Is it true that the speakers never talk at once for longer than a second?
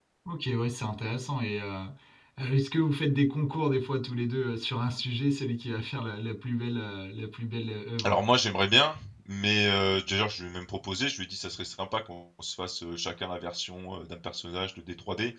Yes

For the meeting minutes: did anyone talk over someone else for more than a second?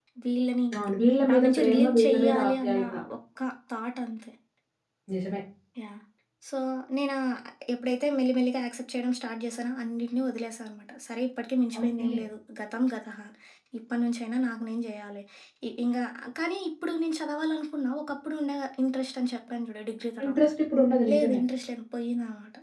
Yes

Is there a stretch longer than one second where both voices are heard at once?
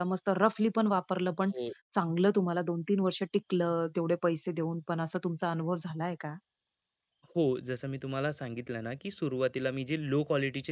No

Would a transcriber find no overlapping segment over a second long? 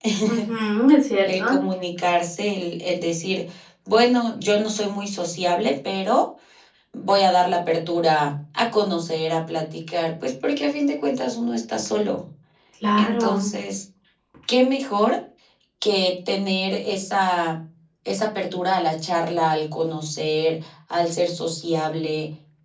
Yes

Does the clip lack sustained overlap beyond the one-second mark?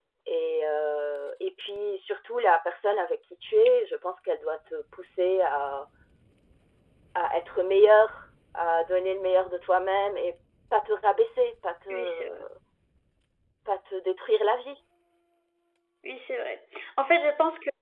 Yes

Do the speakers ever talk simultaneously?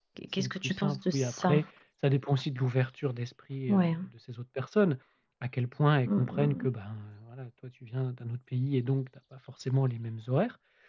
Yes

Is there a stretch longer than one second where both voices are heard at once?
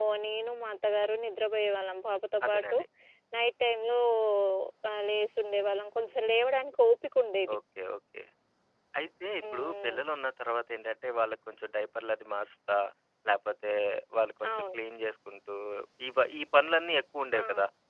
No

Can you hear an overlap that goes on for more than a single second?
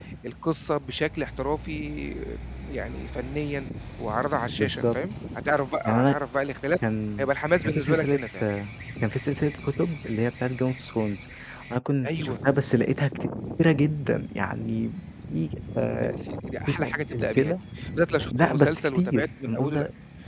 Yes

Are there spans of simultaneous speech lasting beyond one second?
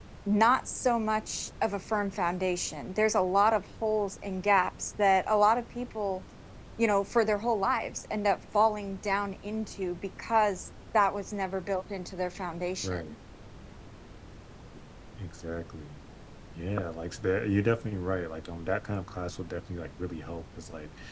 No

